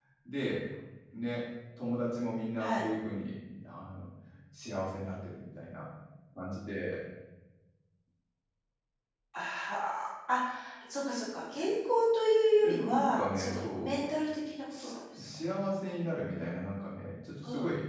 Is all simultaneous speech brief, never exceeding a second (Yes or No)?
No